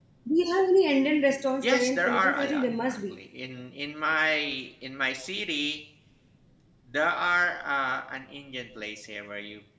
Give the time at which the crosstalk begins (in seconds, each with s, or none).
1.6 s